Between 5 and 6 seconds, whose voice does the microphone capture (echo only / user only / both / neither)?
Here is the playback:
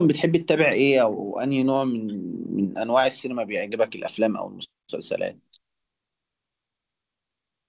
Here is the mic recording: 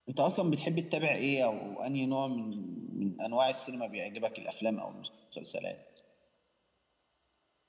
echo only